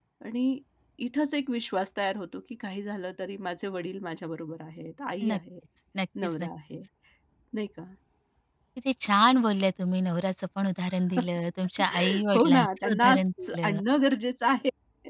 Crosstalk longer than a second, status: present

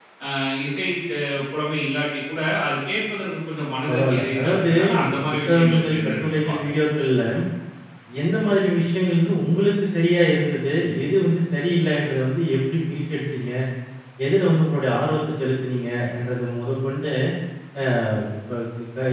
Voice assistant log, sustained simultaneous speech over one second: present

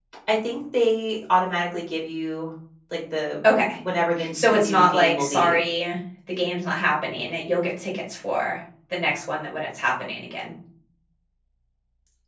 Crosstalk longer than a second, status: present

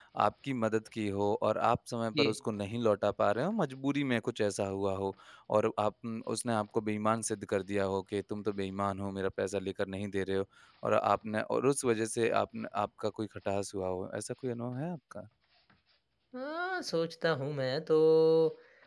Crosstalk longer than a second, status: none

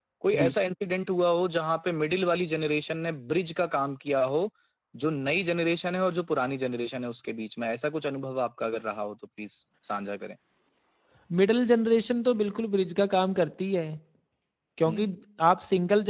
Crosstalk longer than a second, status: none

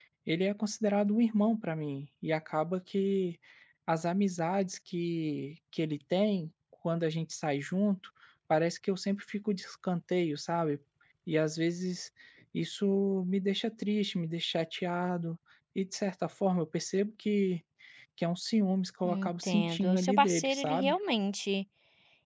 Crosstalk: present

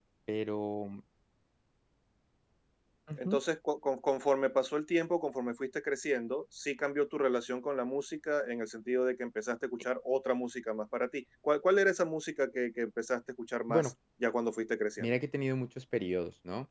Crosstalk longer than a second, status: none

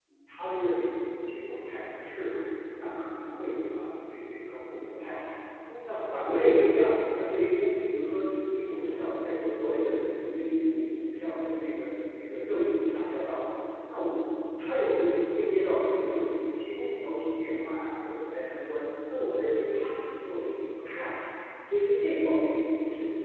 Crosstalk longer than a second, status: none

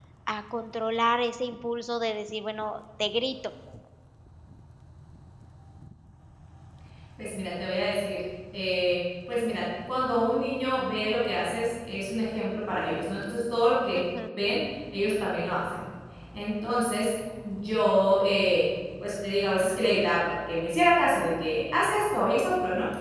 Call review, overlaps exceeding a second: none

